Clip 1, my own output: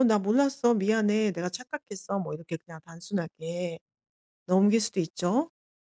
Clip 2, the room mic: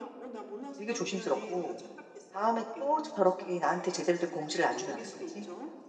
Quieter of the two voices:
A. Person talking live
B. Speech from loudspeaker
B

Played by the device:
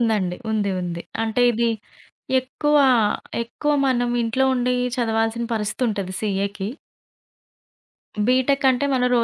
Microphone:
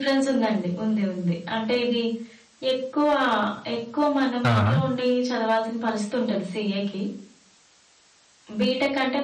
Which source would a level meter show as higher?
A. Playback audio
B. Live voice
B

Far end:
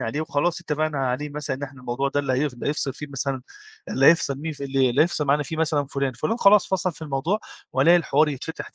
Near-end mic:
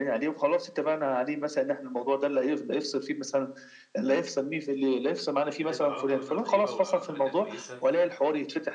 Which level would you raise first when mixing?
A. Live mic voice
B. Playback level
A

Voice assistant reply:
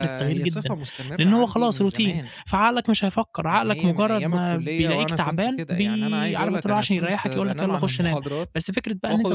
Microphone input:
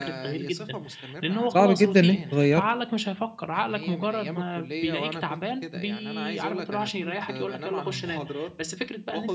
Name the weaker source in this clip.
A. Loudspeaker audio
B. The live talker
A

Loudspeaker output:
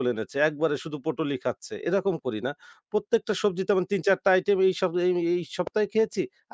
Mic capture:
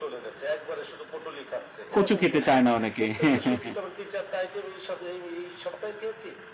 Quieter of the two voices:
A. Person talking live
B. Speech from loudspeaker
B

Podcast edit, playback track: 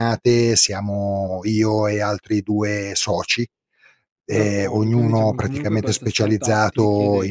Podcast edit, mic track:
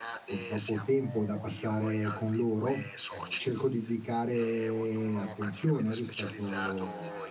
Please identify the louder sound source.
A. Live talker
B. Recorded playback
A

